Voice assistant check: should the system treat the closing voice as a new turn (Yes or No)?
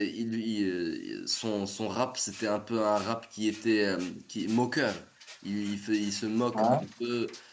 No